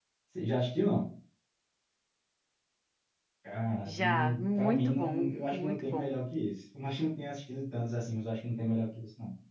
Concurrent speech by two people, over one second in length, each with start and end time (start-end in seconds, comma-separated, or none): 3.9-6.2